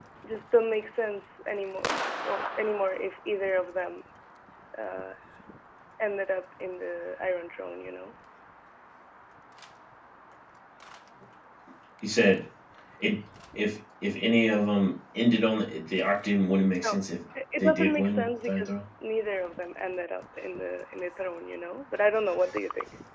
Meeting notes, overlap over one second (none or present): present